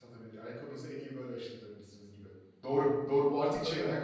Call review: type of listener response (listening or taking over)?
listening